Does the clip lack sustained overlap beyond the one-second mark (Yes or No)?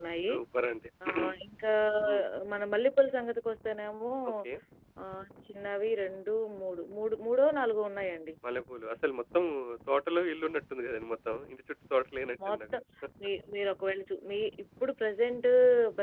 Yes